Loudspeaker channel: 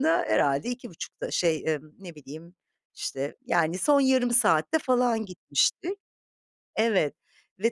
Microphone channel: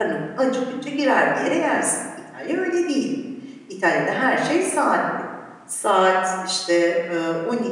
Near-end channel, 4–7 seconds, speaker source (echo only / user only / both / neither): user only